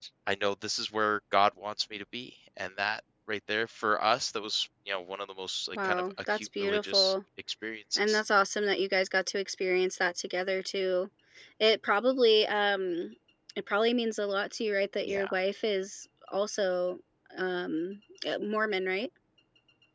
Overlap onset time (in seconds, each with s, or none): 5.8 s